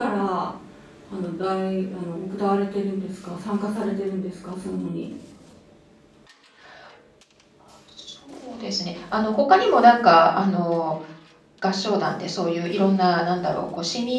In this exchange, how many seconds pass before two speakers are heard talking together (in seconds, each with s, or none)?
none